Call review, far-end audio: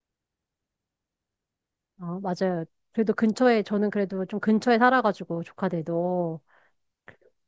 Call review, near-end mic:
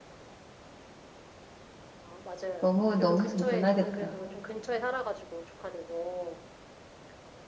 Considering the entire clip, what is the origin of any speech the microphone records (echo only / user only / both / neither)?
both